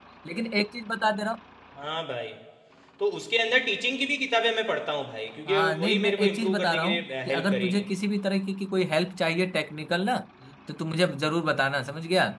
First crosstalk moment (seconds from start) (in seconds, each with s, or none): 5.5 s